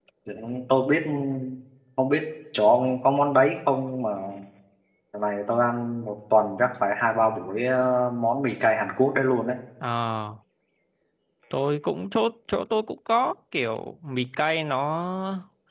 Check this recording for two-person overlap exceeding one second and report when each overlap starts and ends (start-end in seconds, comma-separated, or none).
none